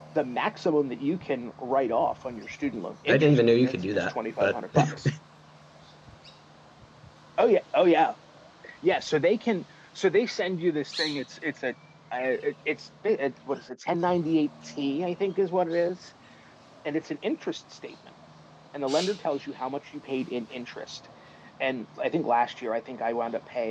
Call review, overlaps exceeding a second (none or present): present